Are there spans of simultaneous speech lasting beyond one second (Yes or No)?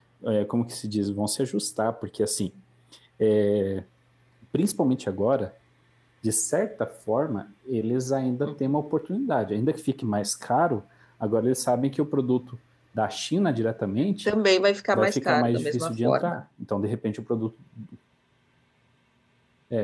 Yes